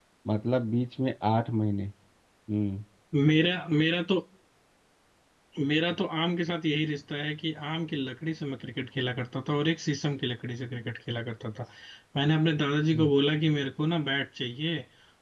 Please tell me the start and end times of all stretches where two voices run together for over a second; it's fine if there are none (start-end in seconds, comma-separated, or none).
none